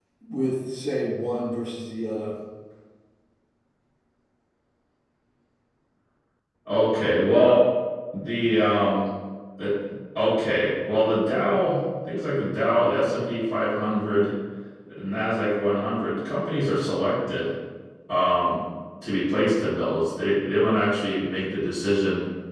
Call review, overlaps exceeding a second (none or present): none